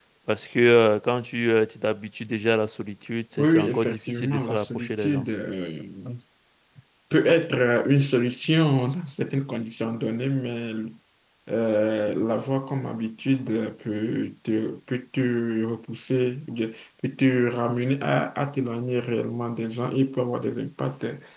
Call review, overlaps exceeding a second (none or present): present